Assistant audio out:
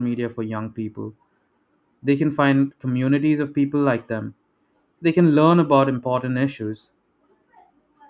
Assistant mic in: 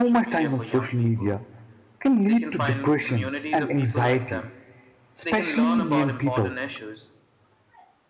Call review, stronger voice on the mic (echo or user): user